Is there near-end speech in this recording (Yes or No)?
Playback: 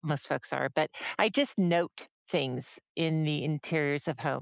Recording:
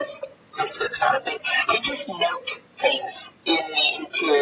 No